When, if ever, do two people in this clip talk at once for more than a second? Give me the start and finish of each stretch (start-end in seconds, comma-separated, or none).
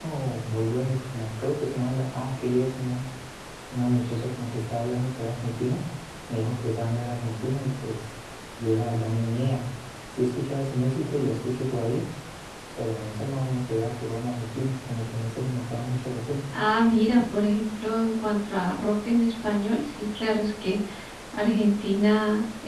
none